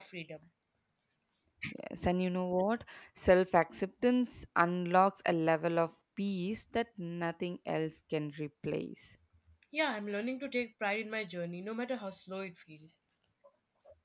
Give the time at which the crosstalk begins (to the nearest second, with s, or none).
none